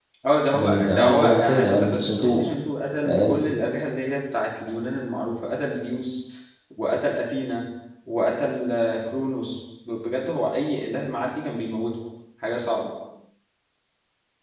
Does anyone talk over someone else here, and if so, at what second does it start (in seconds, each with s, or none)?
0.5 s